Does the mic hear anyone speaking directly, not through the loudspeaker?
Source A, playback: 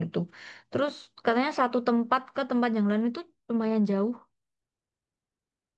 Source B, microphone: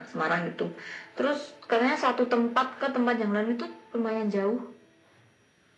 No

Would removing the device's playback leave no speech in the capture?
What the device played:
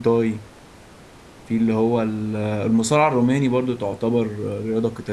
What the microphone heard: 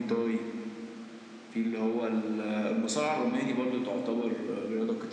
Yes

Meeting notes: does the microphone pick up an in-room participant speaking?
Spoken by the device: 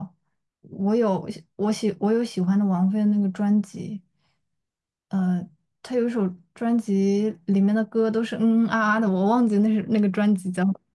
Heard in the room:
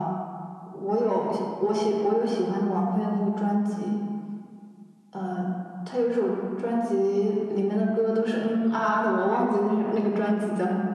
No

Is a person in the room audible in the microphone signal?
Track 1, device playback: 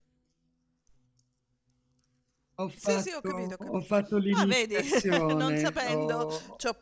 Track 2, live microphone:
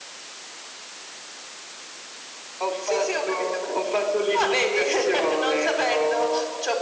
No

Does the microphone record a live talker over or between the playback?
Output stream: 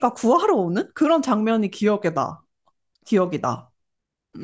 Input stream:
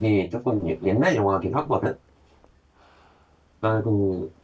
Yes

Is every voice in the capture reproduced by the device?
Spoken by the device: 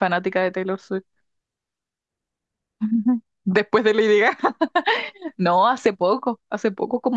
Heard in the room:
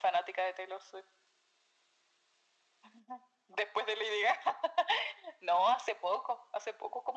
Yes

